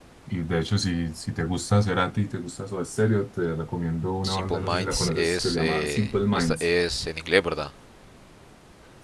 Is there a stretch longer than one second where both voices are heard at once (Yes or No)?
Yes